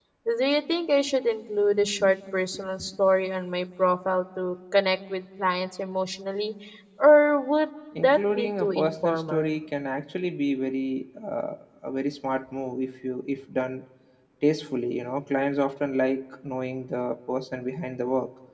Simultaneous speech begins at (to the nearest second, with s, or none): 8 s